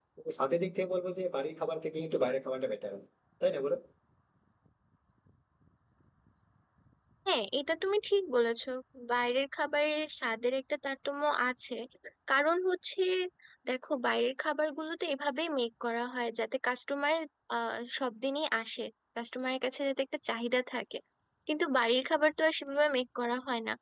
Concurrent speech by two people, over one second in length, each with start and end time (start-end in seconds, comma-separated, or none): none